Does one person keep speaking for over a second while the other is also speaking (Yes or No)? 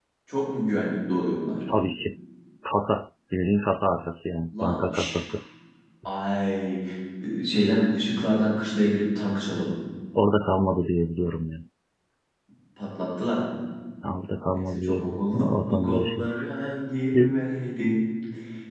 Yes